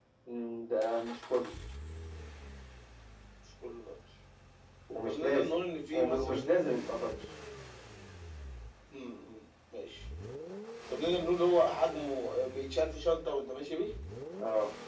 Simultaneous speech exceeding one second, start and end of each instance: 5.0-6.4

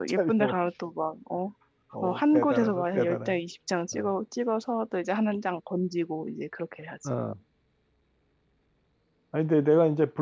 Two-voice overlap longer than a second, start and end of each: 2.0-3.4

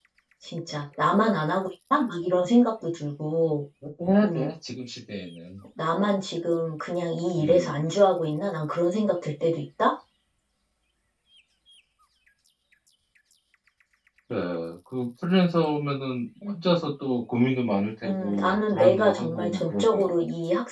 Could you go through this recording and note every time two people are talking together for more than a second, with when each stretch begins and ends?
18.0-20.2

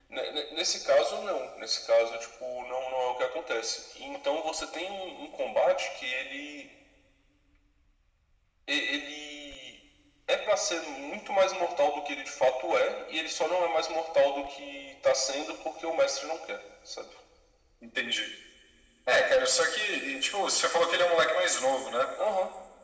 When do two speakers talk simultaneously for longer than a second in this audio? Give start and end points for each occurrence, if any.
none

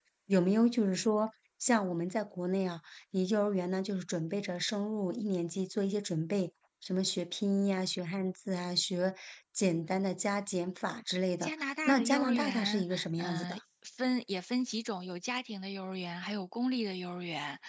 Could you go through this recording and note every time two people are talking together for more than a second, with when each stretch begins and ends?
11.4-13.6

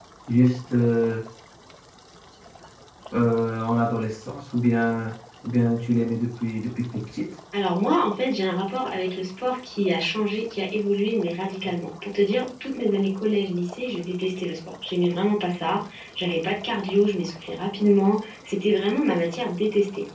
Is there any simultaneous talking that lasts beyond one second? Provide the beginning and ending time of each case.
none

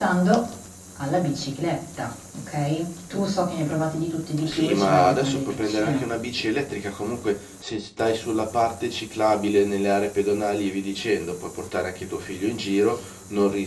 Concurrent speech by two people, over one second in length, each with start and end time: 4.4-6.1

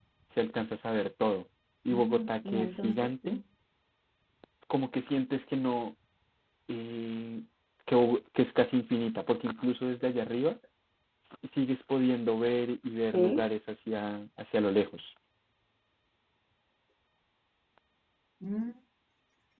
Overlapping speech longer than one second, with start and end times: 1.9-3.3

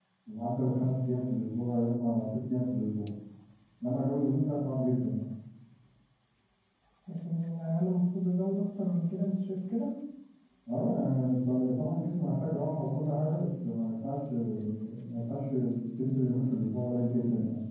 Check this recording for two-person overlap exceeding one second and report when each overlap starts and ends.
none

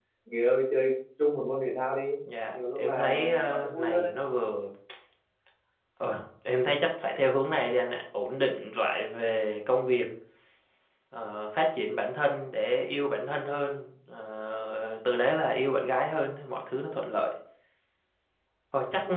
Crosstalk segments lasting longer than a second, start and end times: 2.5-4.1

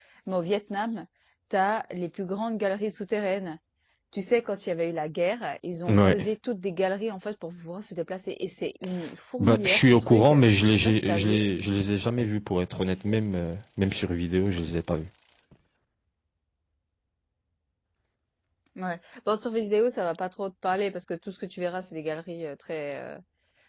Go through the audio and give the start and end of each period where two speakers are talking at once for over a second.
9.4-11.4

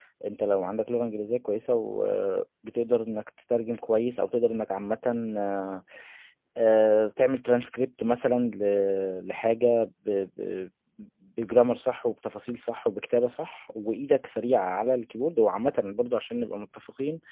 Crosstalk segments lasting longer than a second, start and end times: none

